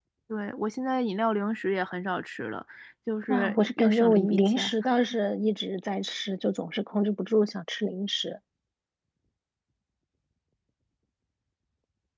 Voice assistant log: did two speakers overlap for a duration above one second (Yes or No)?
Yes